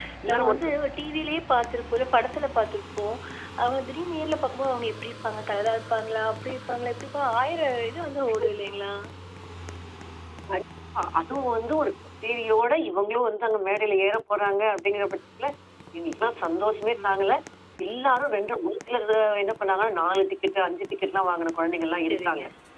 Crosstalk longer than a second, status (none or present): none